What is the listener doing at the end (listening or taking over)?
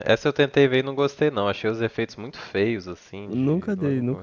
taking over